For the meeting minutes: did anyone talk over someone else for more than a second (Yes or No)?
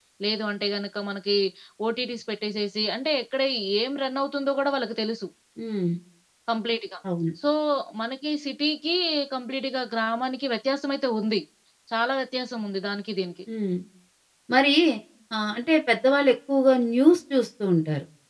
No